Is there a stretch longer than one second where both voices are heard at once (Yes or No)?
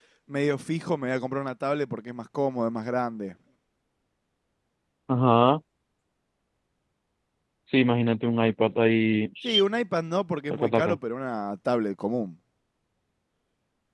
No